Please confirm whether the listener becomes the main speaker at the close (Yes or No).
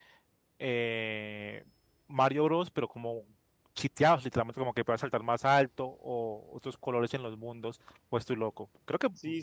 Yes